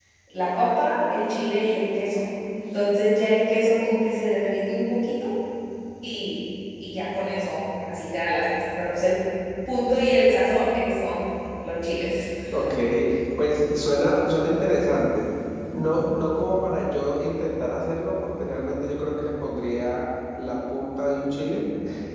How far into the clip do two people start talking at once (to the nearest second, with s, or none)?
none